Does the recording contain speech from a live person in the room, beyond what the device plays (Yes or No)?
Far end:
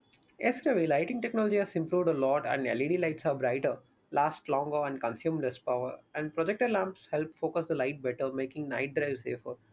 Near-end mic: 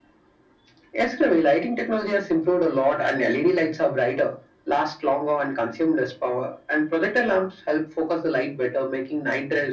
No